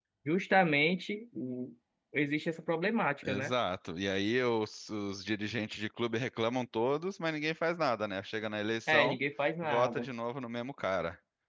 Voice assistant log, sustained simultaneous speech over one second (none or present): none